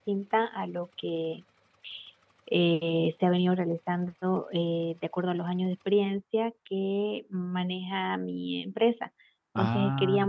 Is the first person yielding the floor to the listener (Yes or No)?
No